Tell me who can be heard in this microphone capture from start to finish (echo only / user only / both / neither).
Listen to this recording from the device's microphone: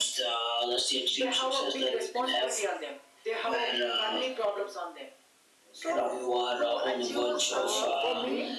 both